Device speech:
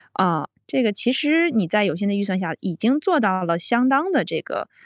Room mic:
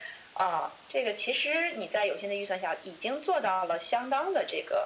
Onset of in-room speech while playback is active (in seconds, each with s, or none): none